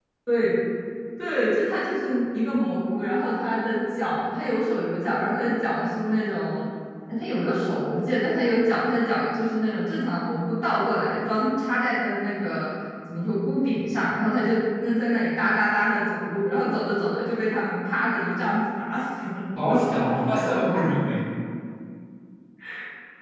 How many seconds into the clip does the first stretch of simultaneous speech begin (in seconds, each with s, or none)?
19.6 s